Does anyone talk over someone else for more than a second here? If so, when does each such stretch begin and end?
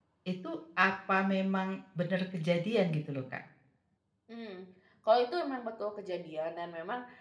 none

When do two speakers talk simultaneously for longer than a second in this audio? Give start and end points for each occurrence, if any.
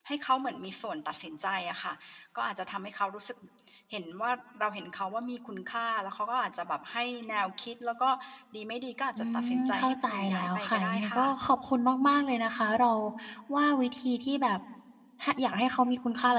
9.2-11.2

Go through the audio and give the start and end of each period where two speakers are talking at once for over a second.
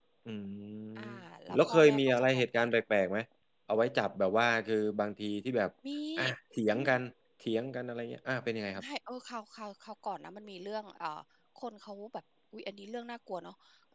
1.6-2.8

